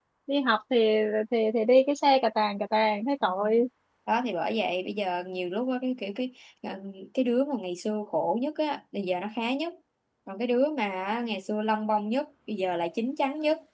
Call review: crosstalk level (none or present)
none